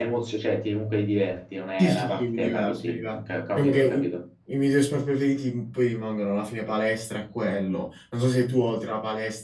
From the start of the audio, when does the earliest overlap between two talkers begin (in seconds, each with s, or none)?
1.8 s